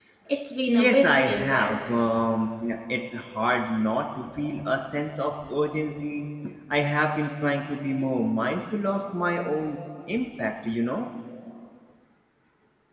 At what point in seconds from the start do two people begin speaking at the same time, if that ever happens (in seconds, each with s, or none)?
0.7 s